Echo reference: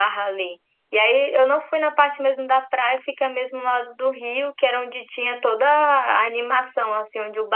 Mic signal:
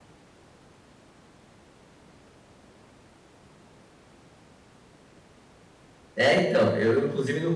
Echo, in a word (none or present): none